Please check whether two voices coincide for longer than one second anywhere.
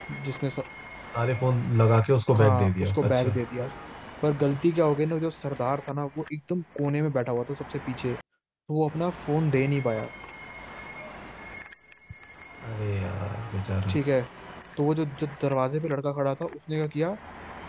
Yes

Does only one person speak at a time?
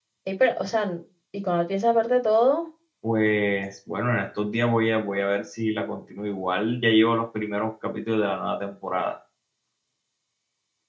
Yes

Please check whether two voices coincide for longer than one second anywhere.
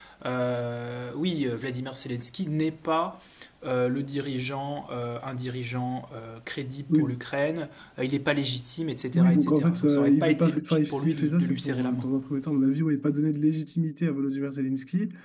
Yes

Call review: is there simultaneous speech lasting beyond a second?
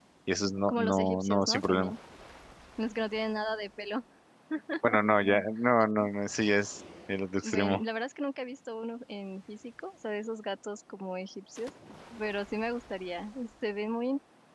Yes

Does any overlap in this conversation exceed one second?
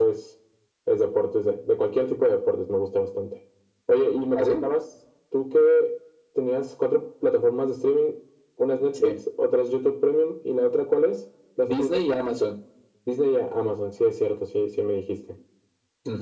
No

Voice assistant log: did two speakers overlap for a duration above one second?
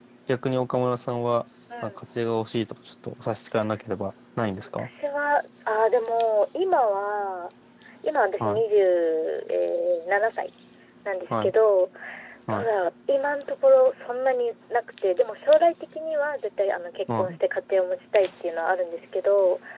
No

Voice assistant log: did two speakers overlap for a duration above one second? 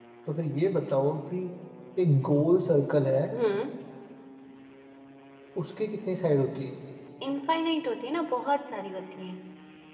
No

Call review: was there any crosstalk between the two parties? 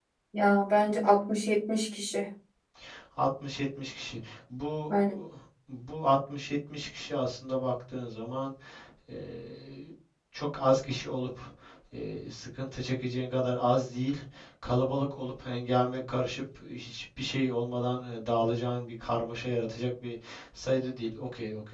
No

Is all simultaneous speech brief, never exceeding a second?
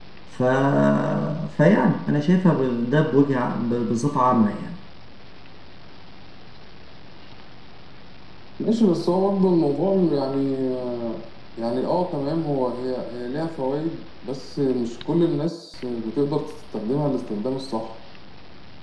Yes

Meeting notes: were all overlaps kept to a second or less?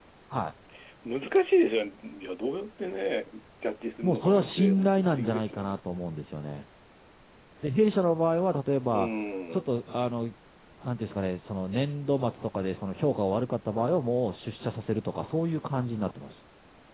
No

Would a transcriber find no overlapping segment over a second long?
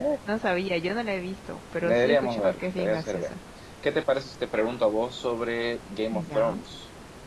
No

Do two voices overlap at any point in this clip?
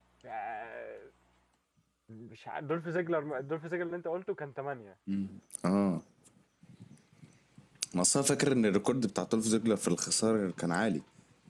No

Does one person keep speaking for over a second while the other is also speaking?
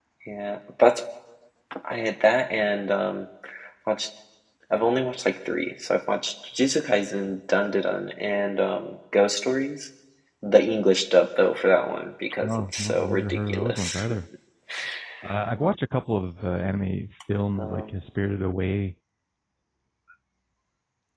Yes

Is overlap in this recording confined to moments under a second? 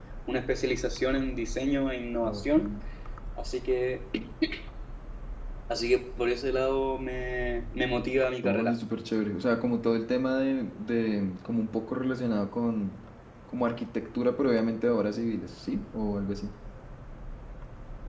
Yes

